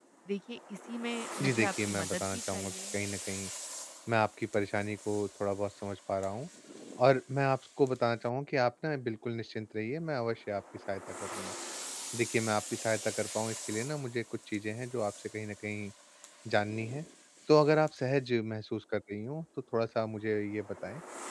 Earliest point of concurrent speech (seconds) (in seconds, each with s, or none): 1.4 s